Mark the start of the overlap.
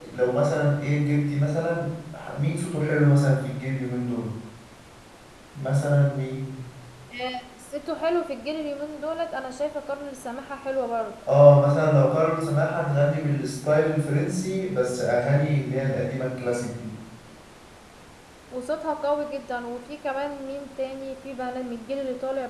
none

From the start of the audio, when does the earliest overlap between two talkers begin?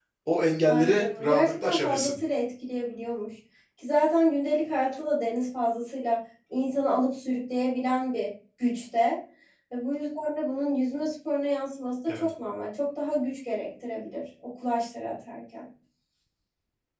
0.7 s

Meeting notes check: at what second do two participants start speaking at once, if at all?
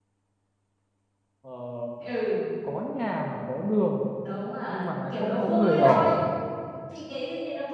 4.7 s

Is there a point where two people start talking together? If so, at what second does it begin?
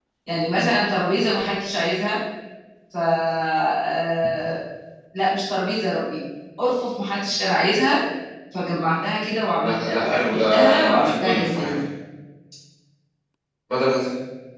9.6 s

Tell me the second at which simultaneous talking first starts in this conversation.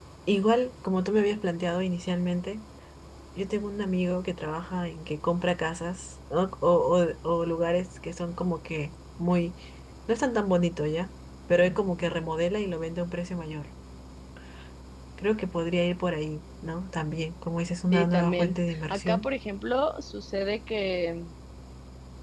17.9 s

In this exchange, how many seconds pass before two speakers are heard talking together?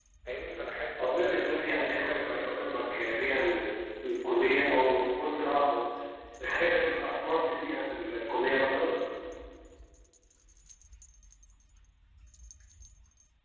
1.0 s

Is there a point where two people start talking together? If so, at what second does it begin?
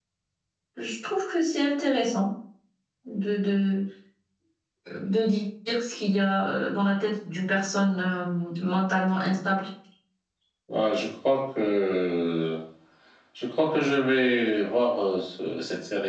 none

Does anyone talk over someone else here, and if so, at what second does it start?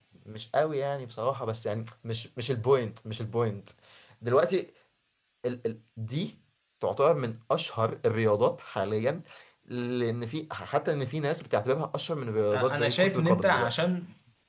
12.5 s

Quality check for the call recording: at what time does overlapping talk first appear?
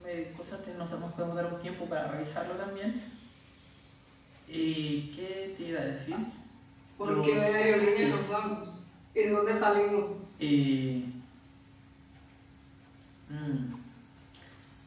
7.0 s

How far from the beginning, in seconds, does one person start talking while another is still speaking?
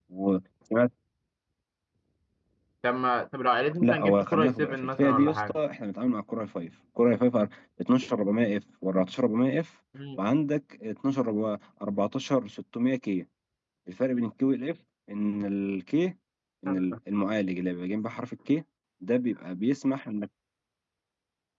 3.8 s

